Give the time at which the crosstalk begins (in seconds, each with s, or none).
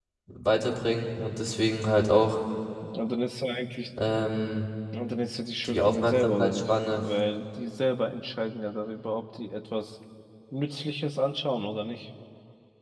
5.7 s